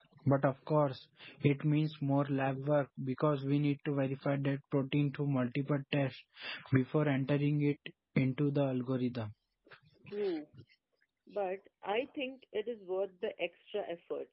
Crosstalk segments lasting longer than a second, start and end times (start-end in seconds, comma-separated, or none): none